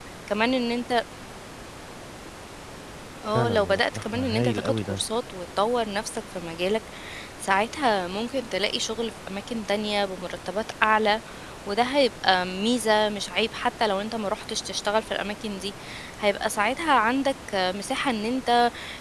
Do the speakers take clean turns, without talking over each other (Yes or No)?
No